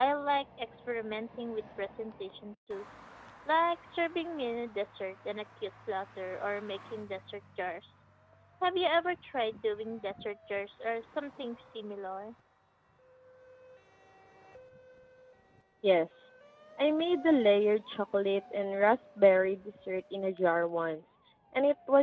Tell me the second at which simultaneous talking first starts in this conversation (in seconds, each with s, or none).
none